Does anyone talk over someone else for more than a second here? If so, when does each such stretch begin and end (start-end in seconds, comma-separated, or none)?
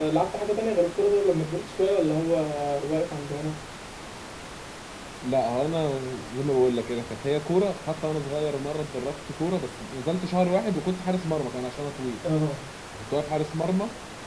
none